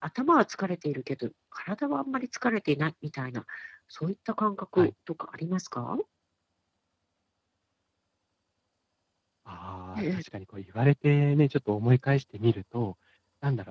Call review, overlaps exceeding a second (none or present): none